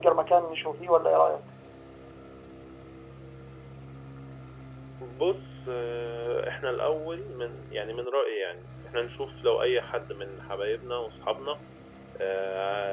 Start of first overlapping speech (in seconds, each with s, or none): none